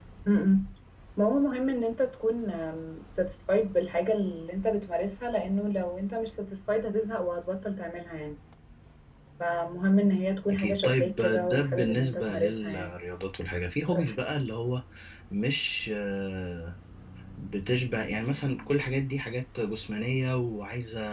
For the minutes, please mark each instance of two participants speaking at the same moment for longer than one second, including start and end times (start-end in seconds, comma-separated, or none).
10.5-12.9